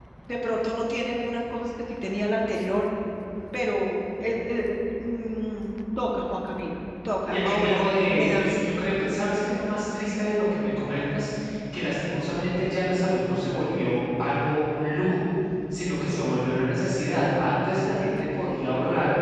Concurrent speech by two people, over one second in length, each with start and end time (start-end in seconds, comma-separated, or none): 7.3-8.5